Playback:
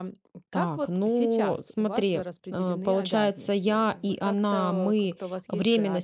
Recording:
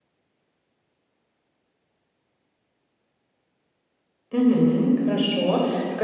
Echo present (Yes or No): No